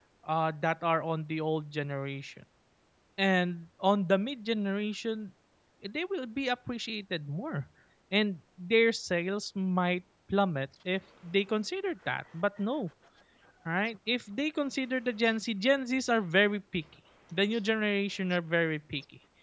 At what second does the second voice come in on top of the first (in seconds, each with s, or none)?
none